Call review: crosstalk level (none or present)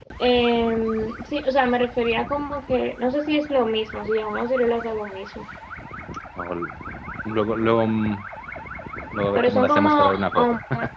present